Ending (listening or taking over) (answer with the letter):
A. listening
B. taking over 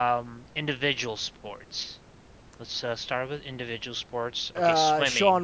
B